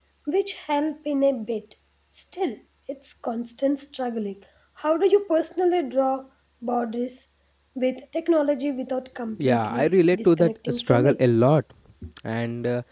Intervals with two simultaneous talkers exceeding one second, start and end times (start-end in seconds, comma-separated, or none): 9.4-11.2